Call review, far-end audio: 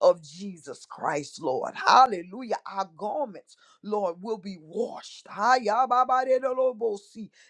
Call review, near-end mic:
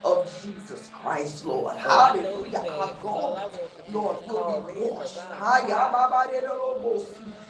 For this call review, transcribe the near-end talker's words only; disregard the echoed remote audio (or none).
Oh, I know he mad, cause all I want to do was call in, cause I'm tired.